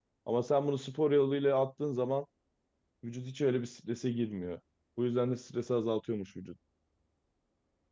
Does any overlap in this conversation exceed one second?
No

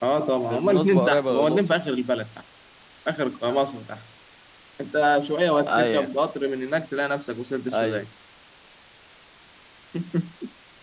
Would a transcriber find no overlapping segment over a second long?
No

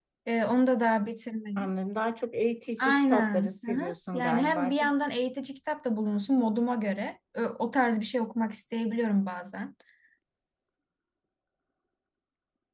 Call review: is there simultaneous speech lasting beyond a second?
Yes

